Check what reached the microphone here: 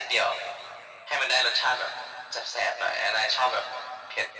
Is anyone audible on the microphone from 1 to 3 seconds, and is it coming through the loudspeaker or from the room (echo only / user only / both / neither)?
echo only